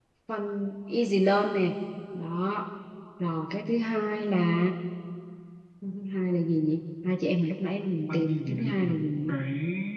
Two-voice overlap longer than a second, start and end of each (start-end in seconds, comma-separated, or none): 8.1-9.3